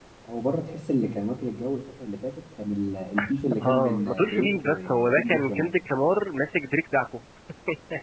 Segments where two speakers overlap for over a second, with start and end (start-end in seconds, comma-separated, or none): 3.6-5.7